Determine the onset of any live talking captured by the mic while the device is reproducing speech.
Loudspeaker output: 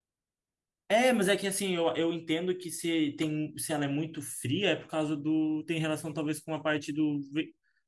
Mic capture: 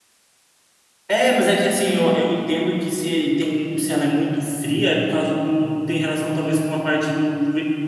none

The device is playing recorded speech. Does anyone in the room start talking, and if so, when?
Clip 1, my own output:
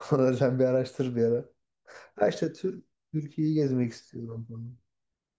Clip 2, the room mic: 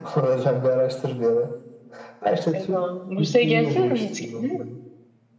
3 s

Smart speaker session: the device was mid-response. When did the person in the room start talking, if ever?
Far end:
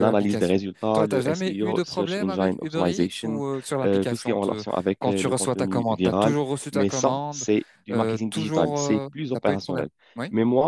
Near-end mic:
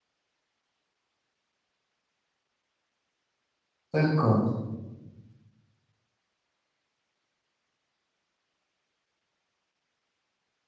4 s

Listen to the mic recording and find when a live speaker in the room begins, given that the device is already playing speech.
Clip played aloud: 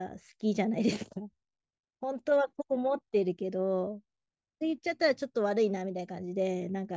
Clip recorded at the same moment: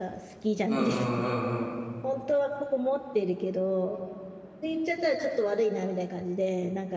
1 s

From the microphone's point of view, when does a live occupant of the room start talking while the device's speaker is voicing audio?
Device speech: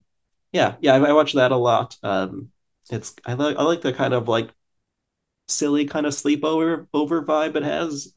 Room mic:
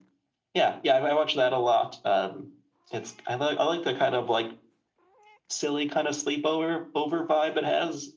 none

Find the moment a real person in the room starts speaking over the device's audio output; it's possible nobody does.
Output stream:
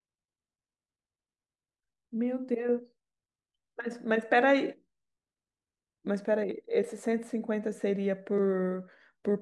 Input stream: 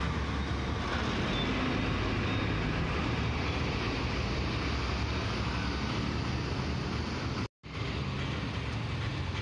none

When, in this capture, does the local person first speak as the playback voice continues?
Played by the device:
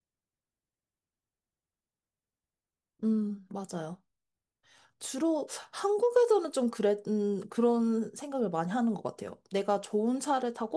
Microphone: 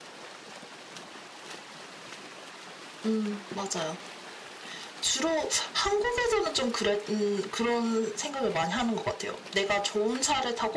none

